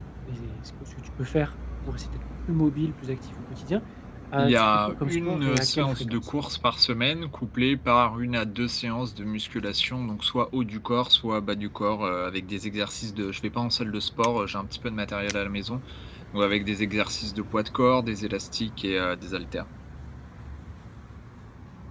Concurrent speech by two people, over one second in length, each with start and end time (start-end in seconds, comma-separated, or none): 4.4-6.2